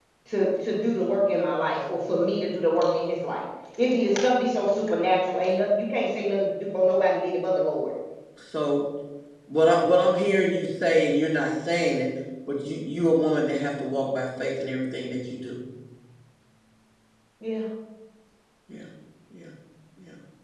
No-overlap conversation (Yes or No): Yes